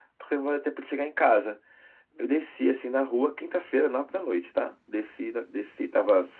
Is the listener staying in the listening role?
Yes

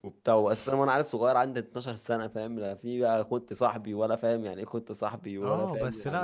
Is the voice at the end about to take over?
Yes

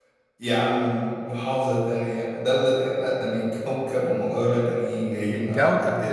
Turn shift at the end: Yes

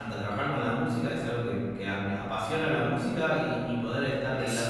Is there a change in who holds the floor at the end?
No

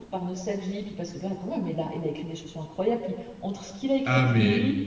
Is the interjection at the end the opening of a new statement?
No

